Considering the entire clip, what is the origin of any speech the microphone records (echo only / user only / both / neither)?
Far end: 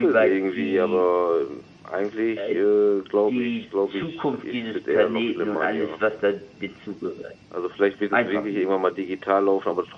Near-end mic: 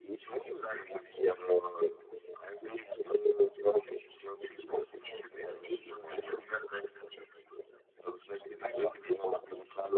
echo only